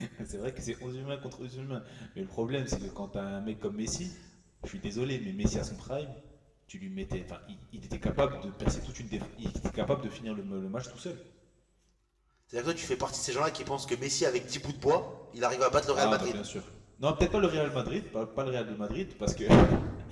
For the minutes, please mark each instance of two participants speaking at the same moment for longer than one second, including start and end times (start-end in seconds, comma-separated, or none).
none